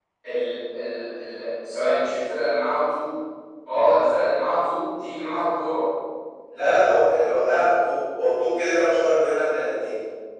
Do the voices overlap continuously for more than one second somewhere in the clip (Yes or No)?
No